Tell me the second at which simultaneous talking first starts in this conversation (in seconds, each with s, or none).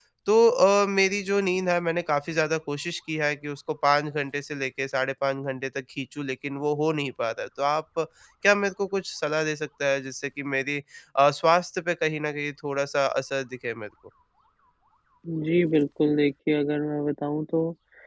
none